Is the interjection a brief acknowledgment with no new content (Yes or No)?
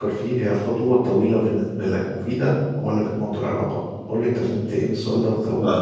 No